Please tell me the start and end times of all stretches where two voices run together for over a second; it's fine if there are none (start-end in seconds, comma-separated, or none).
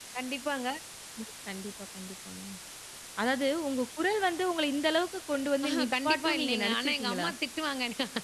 5.7-7.3